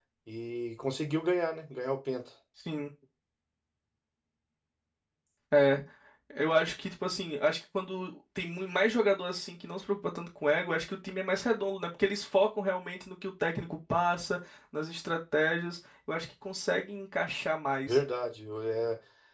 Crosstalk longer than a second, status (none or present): none